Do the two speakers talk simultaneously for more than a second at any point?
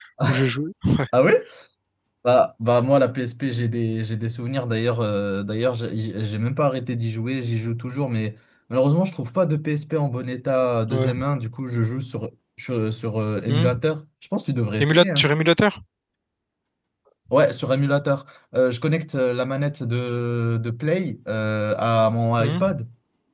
No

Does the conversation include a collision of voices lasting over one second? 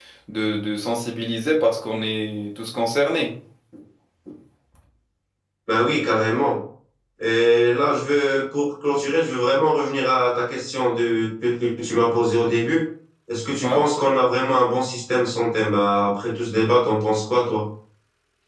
No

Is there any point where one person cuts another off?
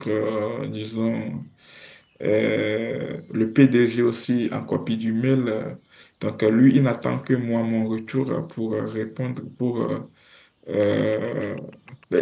No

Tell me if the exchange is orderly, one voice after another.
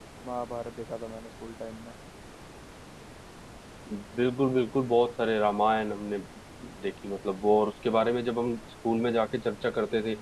Yes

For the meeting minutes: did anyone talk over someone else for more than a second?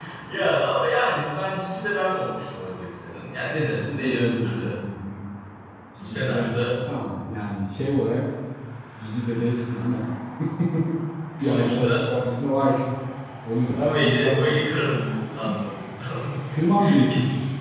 Yes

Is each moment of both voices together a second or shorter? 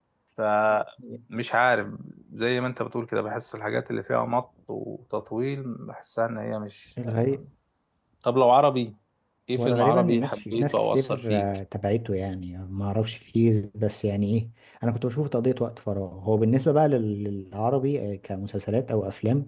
No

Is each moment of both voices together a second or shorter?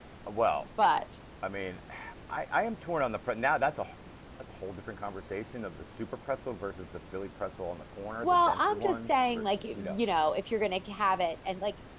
No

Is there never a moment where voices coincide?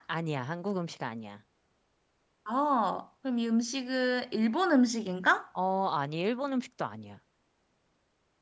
Yes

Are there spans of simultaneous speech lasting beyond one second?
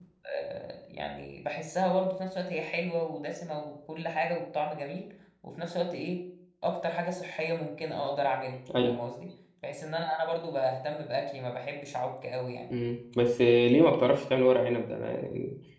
No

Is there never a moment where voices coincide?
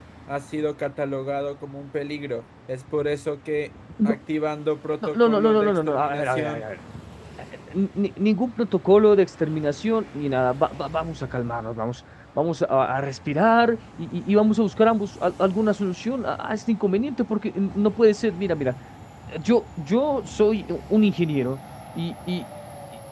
No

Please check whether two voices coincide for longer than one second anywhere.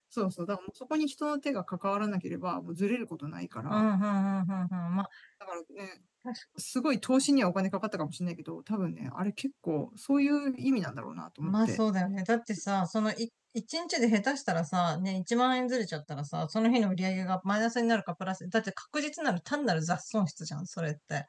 No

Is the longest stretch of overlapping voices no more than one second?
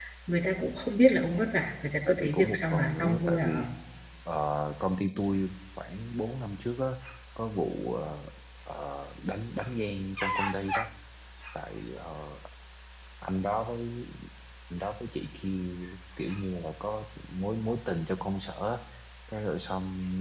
No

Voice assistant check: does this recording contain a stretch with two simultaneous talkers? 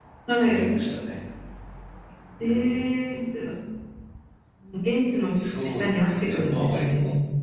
Yes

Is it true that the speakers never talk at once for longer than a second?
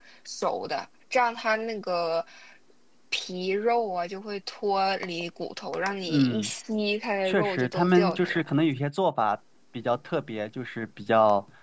No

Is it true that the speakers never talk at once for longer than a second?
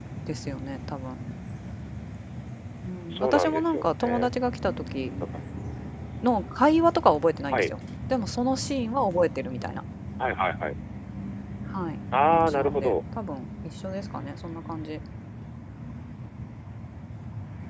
No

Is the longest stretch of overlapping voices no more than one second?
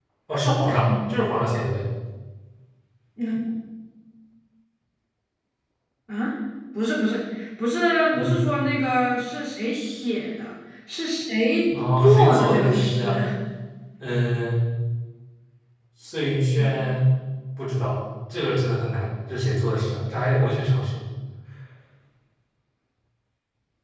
No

